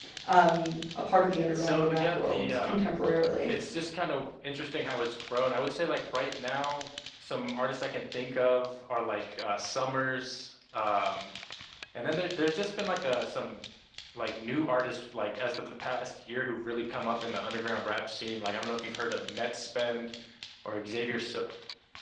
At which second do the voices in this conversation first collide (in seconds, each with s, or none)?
1.5 s